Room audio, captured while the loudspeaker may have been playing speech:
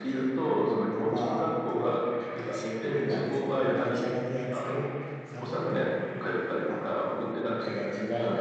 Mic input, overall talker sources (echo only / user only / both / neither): echo only